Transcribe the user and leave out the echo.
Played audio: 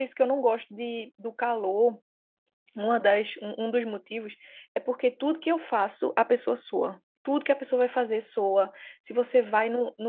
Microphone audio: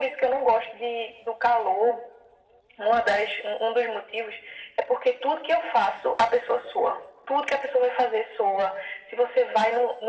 none

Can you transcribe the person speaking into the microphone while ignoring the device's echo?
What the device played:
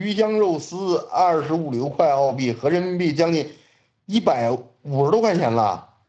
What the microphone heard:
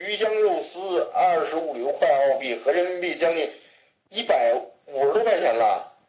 none

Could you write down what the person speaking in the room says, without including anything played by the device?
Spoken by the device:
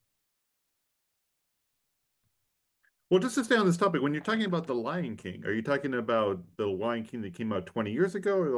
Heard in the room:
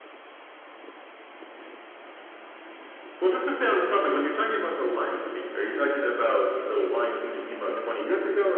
none

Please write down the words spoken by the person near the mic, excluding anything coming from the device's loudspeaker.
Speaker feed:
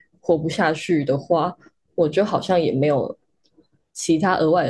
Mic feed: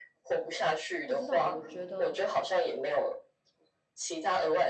不知道欸，我觉得

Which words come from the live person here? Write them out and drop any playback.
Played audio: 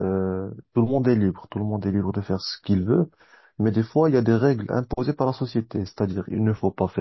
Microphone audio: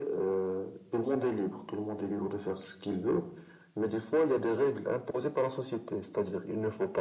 none

